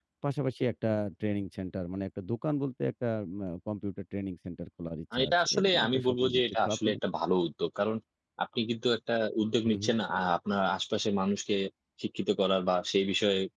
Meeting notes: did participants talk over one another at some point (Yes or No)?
Yes